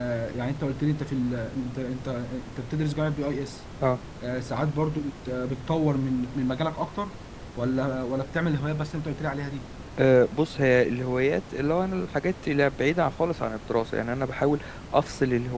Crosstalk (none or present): none